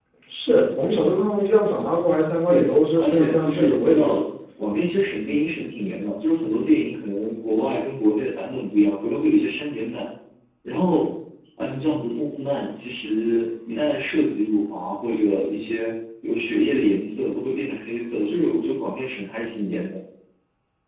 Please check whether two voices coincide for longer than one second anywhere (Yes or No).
Yes